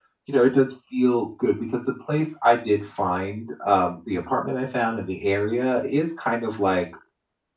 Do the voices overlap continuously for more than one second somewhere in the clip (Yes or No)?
No